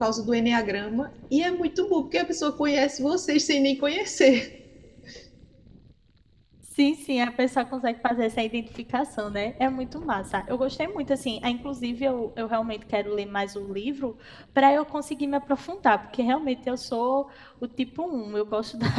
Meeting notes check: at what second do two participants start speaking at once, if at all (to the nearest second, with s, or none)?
none